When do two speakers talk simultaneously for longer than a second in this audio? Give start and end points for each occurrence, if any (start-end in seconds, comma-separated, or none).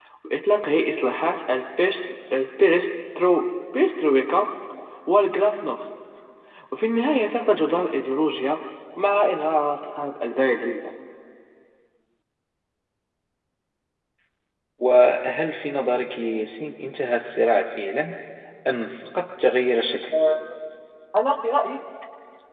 none